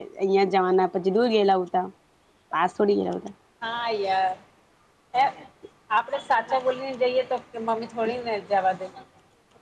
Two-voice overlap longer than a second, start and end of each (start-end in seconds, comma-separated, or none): none